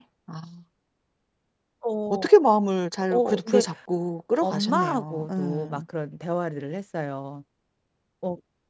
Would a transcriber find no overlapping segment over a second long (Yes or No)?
No